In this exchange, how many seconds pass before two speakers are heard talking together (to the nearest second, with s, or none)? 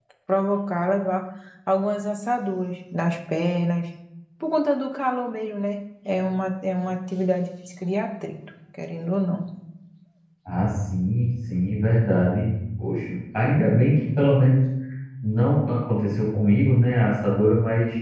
none